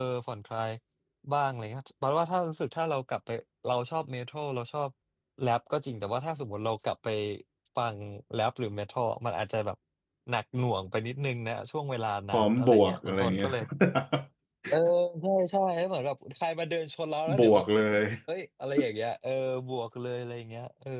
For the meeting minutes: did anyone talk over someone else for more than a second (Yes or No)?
Yes